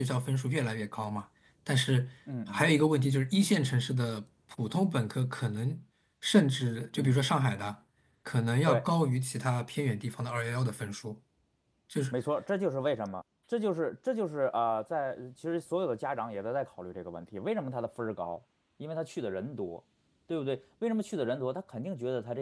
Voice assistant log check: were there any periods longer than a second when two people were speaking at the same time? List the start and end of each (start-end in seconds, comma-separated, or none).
none